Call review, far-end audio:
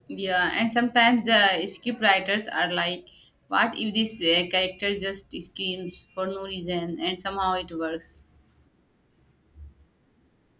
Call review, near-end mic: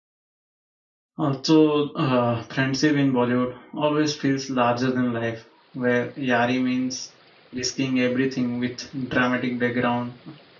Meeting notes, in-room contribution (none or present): present